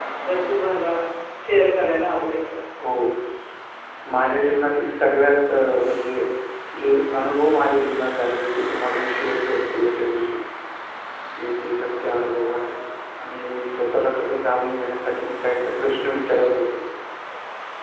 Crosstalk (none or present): none